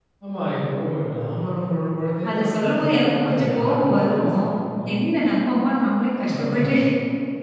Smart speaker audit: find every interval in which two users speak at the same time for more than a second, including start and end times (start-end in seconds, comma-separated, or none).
2.3-4.3